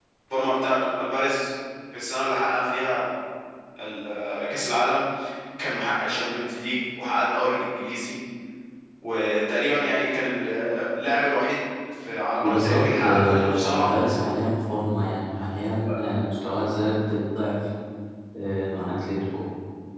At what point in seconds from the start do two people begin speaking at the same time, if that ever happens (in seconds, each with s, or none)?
12.4 s